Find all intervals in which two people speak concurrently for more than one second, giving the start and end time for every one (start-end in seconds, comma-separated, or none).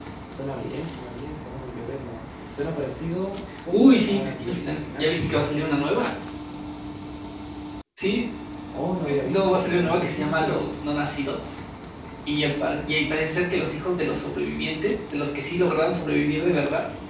3.7-5.1, 9.1-10.6